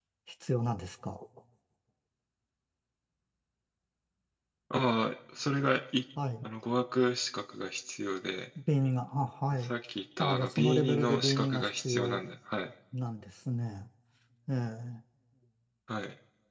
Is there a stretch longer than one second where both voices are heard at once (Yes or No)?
Yes